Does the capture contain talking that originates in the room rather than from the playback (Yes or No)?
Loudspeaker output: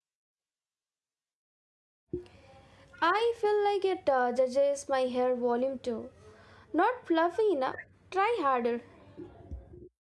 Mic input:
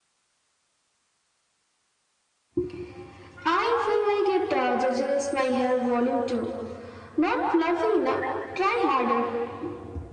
No